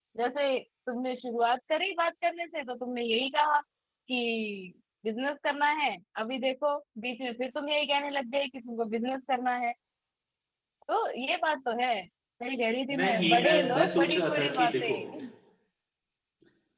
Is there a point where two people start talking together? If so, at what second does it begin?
13.0 s

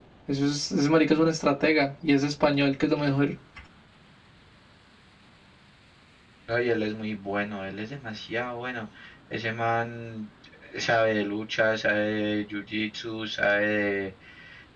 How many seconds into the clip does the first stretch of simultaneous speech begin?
none

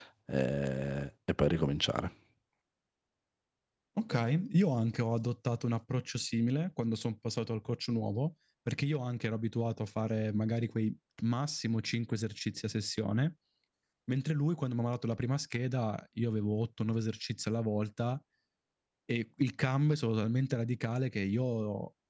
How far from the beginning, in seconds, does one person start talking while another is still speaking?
none

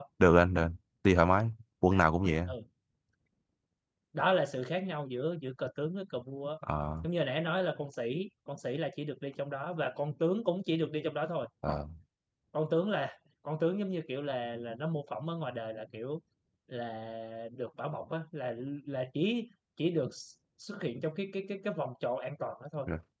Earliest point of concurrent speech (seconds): none

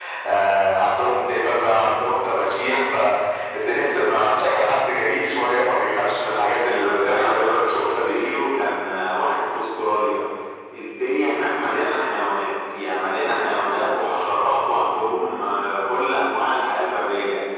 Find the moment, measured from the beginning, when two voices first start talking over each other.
6.8 s

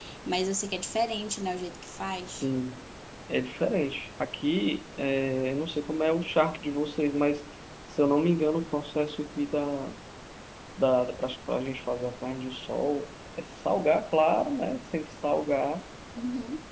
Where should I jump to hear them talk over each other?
none

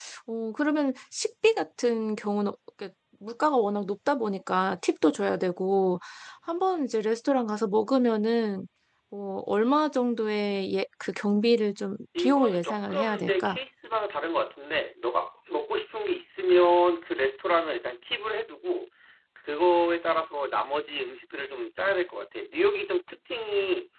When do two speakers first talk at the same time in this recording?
12.2 s

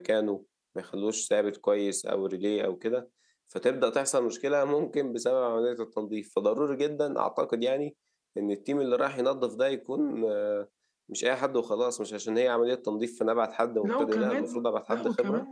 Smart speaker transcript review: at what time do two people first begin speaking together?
13.8 s

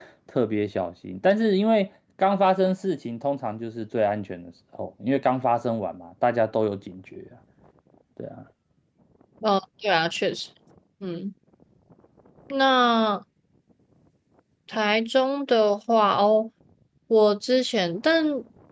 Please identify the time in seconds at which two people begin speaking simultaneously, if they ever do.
none

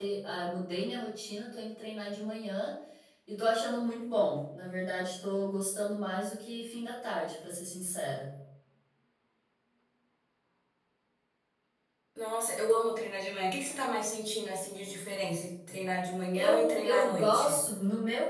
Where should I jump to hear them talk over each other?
16.3 s

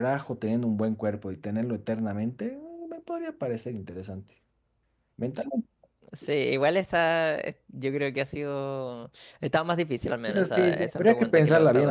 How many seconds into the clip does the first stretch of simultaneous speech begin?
10.3 s

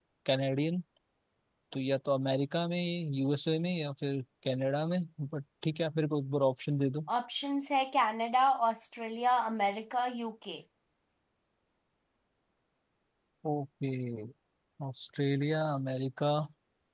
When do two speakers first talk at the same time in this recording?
none

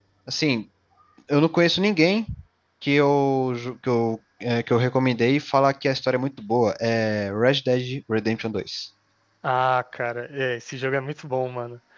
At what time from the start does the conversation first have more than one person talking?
none

